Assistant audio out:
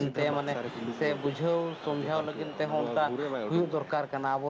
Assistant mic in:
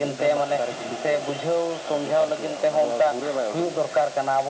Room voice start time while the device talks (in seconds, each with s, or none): none